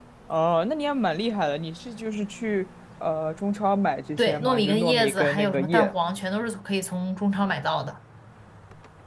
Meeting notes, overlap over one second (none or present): present